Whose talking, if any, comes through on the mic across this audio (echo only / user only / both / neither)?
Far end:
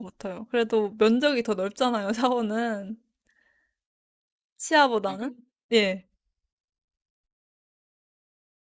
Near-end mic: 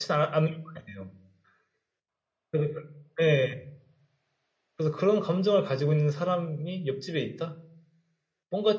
user only